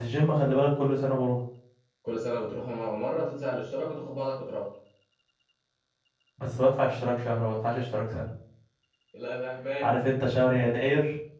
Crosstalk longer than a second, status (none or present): none